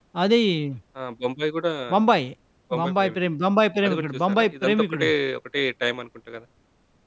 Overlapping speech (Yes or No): Yes